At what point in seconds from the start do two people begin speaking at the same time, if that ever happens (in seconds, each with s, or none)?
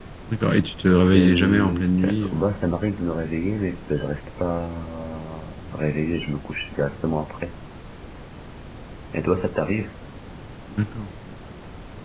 1.1 s